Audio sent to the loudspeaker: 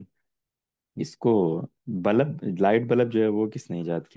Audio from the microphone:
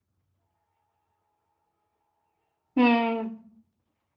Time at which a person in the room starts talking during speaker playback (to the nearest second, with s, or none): 3 s